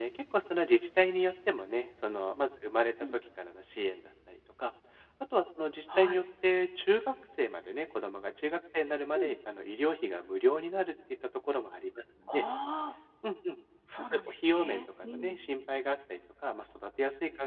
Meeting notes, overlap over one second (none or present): present